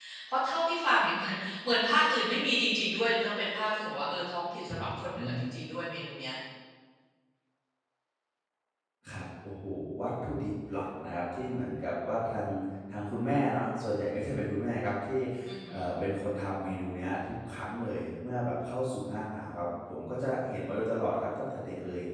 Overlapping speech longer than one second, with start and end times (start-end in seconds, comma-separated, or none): none